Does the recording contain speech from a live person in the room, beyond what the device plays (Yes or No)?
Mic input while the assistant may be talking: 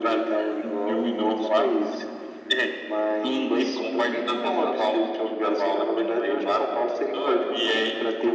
No